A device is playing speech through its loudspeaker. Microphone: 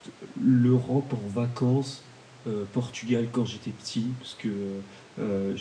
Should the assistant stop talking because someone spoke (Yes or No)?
Yes